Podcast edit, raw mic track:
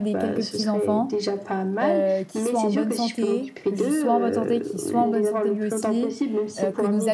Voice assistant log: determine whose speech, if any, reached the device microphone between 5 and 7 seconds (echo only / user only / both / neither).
both